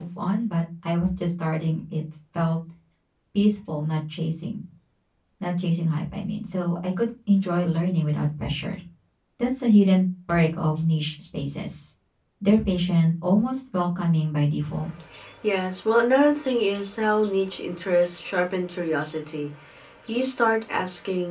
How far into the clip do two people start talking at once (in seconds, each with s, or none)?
none